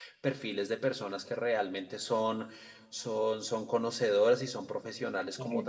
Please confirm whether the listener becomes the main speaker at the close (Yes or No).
No